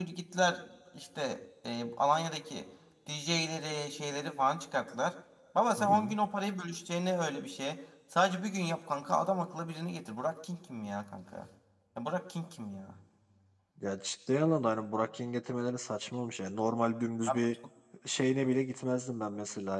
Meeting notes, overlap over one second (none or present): none